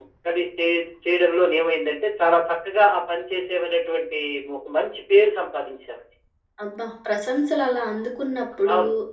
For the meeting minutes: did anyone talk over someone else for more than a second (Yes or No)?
No